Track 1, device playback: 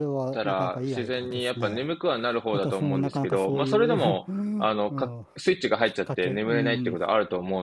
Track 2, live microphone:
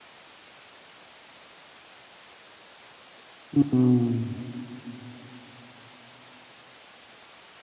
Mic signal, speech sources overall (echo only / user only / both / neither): user only